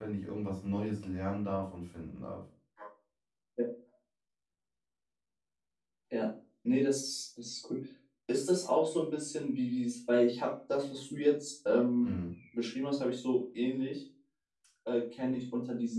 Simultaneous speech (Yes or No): No